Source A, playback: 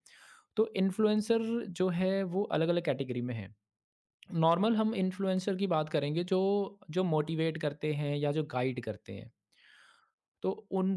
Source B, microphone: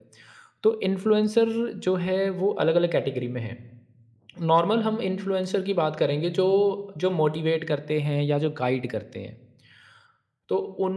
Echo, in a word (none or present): present